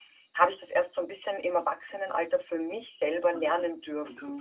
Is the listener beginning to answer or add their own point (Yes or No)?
Yes